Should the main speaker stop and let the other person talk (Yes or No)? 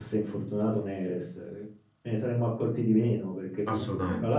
No